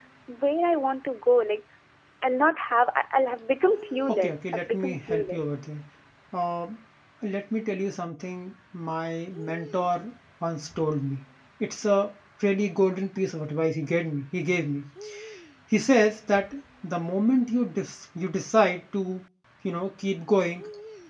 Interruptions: present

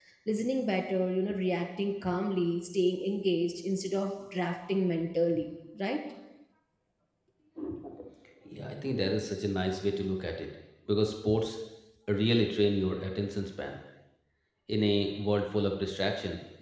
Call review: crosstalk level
none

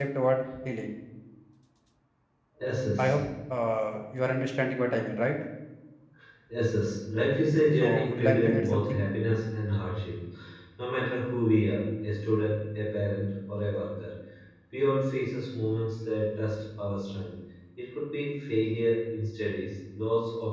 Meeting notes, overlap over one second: present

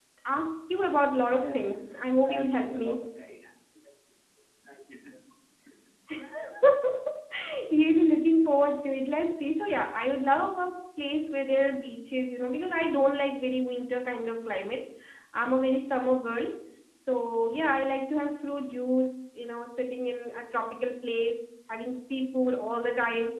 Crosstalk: present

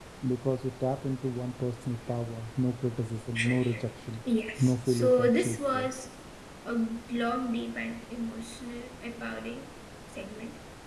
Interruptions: present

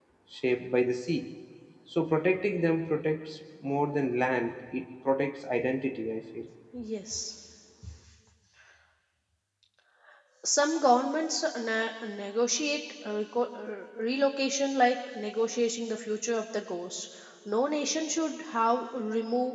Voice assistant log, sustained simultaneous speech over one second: none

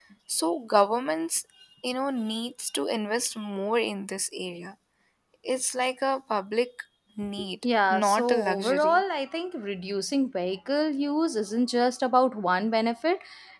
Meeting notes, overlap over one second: present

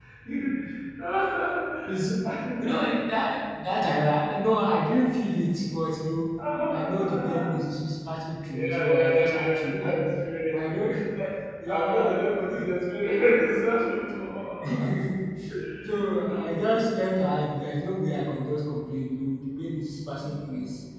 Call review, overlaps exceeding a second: present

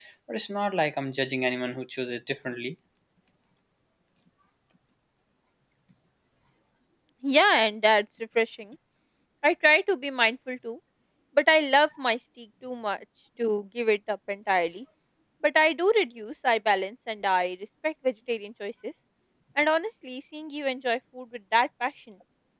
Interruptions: none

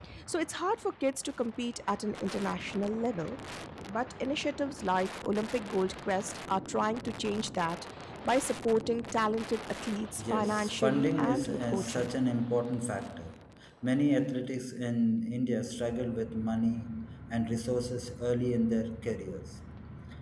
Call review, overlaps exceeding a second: present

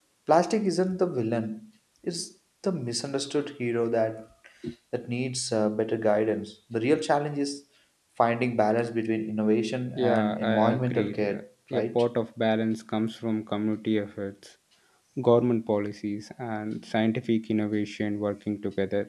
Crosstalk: present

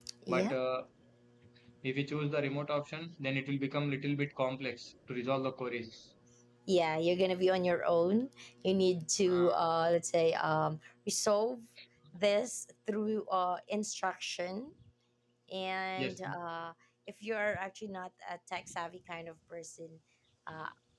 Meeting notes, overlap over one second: none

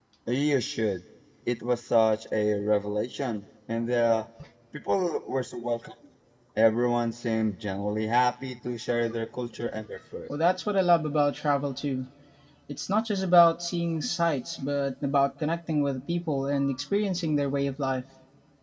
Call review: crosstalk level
none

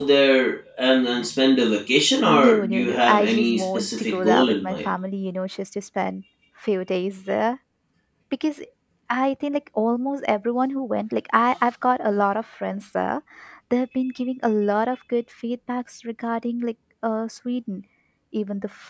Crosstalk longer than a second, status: present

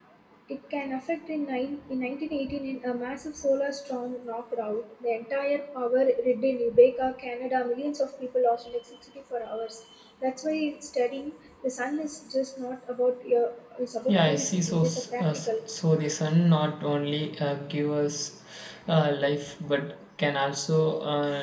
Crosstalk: present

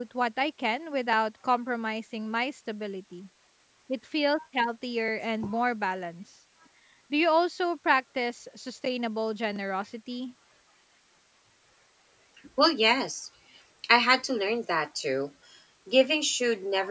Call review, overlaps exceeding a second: none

